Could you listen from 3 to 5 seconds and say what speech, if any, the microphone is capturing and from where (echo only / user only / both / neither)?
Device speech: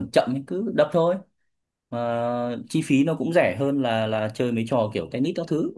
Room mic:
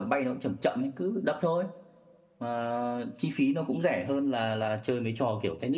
echo only